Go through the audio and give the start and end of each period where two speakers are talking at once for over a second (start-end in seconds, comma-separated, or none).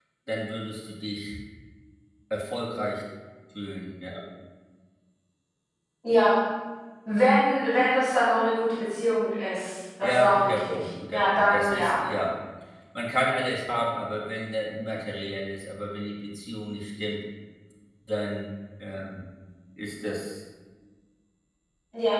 10.0-12.0